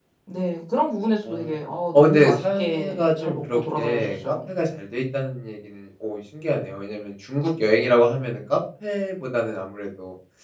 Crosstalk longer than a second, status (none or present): present